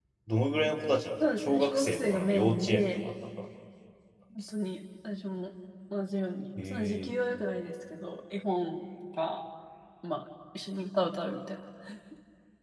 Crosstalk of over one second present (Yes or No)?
Yes